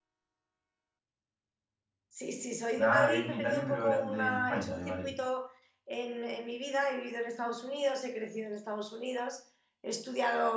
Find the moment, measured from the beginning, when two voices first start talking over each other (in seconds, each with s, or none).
2.8 s